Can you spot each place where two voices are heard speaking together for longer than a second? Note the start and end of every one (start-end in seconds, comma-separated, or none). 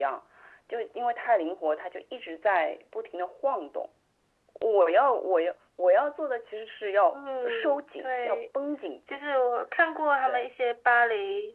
7.1-8.4